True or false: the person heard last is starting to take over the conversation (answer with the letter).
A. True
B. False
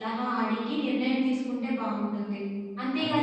B